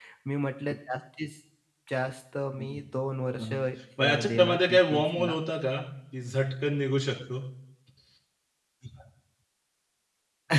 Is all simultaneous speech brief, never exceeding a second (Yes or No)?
No